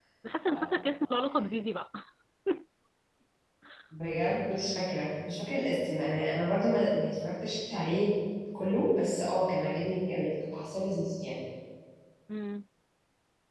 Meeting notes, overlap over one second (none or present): none